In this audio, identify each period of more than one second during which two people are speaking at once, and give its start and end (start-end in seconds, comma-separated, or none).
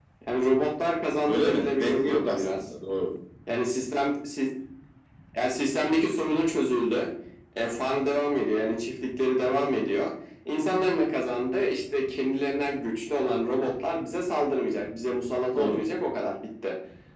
1.3-2.6